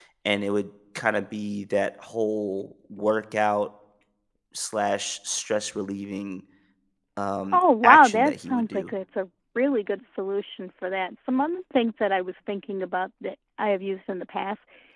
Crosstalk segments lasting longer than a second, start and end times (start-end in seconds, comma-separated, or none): 7.5-8.9